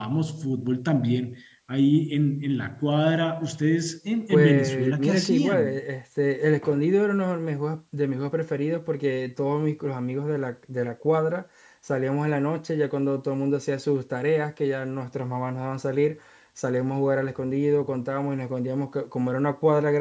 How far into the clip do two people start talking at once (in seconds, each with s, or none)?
4.3 s